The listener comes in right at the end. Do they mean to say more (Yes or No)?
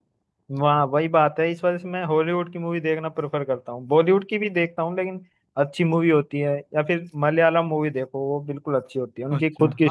Yes